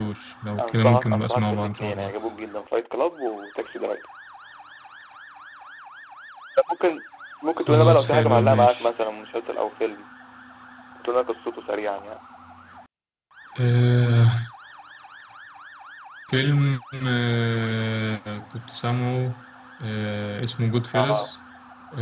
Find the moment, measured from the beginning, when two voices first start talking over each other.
1 s

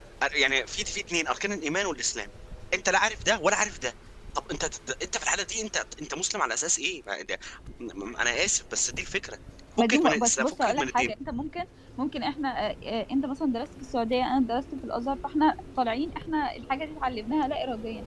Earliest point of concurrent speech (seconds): 10 s

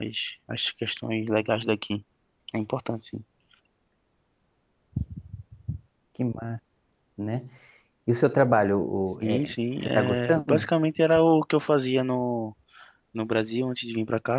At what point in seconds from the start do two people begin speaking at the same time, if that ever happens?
9 s

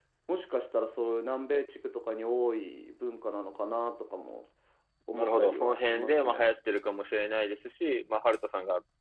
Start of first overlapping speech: 5 s

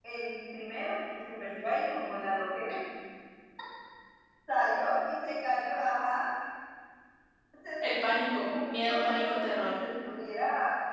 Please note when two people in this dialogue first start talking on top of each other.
8 s

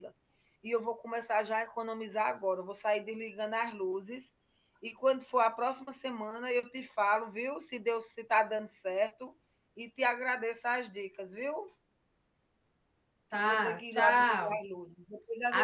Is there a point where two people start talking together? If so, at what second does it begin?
13 s

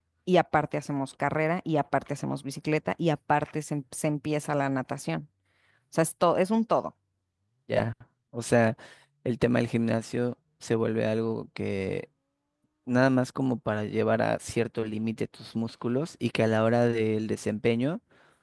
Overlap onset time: none

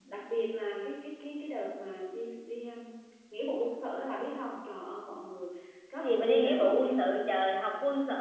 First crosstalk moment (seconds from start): 6 s

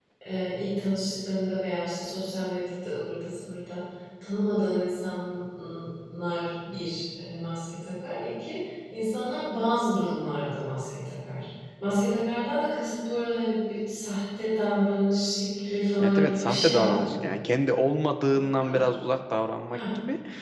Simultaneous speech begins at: 16 s

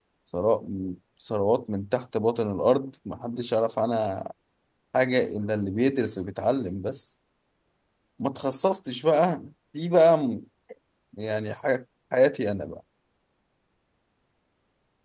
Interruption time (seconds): none

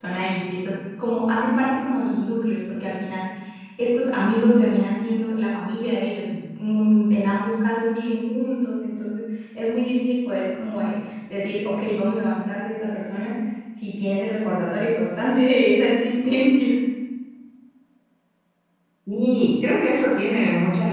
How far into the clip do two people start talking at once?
none

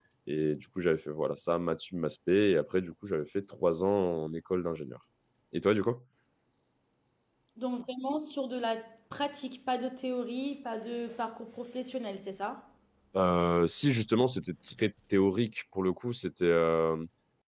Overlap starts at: none

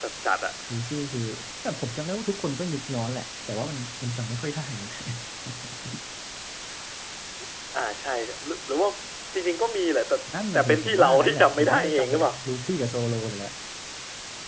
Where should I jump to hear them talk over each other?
11 s

